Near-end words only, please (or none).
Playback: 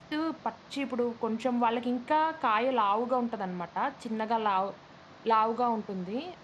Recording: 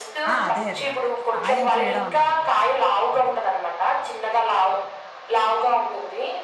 ఆ! అదే. అదే. అందుకే సాయం చేయడం అన్నాను అందుకే. అదే.